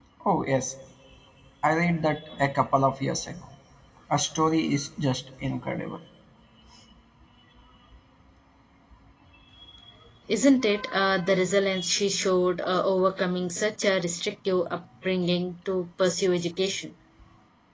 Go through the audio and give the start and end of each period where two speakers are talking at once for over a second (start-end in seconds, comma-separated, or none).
none